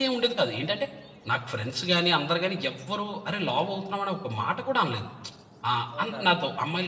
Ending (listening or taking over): listening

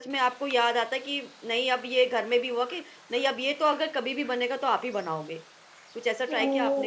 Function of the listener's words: taking over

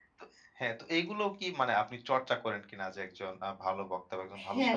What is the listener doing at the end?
taking over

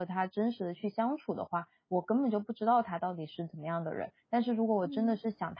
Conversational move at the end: listening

